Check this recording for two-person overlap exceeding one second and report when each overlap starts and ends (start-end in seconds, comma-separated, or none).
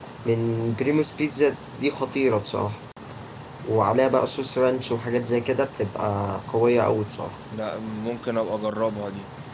none